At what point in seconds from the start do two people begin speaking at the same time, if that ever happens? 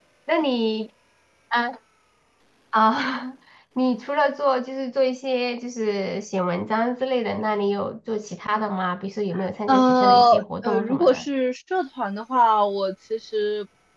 9.7 s

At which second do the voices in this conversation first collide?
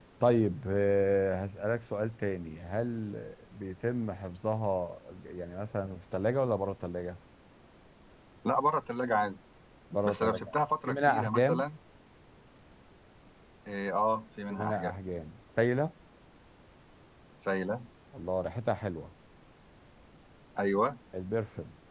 10.0 s

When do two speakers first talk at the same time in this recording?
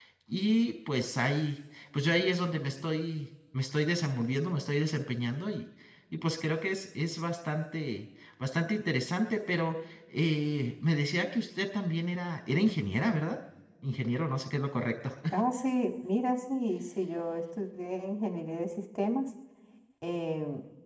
none

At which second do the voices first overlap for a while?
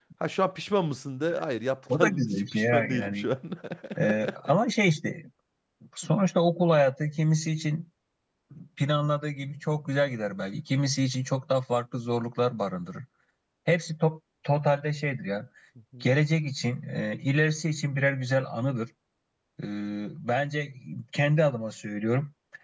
1.9 s

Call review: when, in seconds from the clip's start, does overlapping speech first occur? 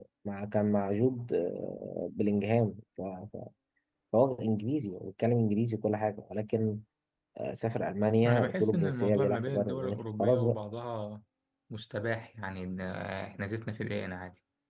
8.3 s

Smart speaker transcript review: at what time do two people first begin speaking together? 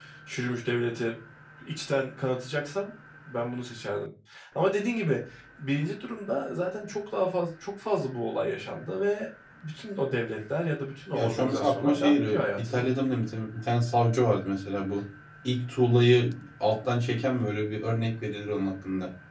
11.1 s

